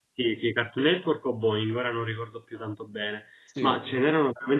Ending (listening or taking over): listening